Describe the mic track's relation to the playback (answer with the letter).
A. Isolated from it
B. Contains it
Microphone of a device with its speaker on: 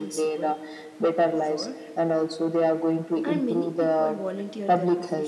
B